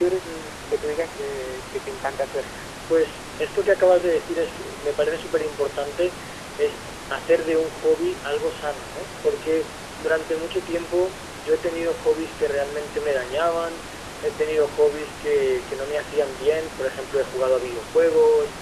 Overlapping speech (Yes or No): No